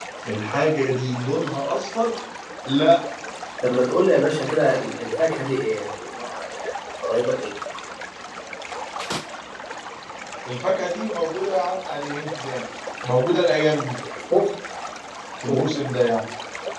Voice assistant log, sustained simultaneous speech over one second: none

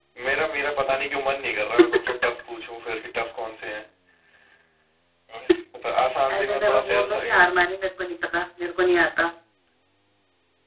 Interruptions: present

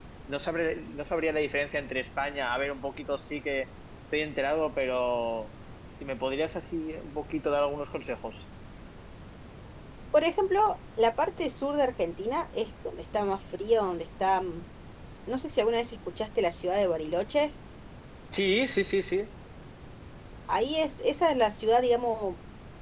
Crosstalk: none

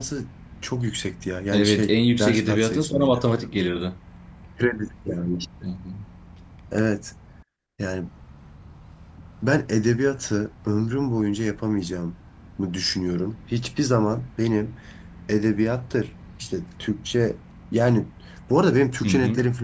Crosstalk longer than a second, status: present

